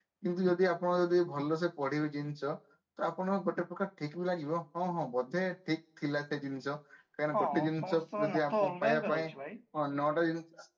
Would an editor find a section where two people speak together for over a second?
Yes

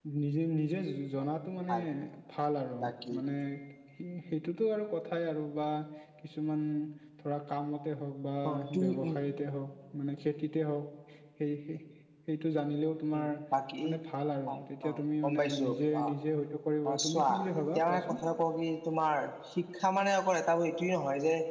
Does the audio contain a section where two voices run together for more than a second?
Yes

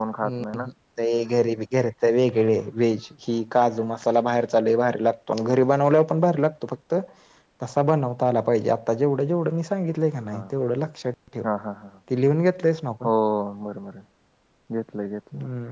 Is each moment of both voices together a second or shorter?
Yes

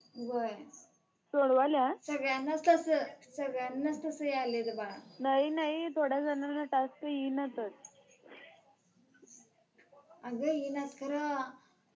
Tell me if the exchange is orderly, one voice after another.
Yes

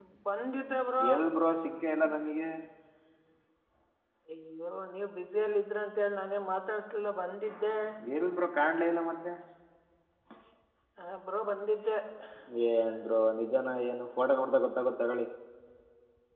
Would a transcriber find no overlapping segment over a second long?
Yes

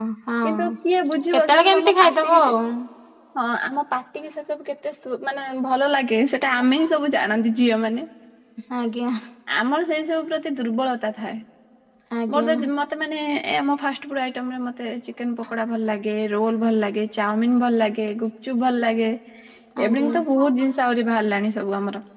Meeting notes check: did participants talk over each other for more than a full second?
Yes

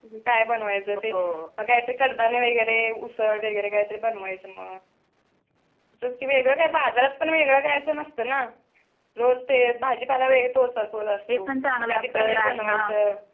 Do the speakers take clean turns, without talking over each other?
No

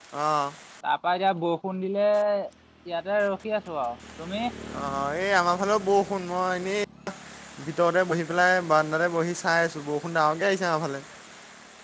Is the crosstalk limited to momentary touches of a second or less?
Yes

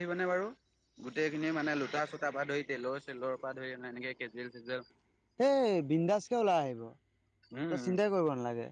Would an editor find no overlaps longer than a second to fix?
Yes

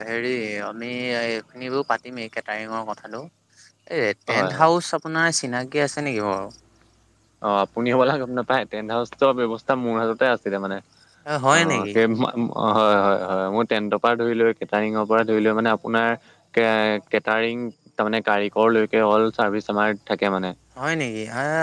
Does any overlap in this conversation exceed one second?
No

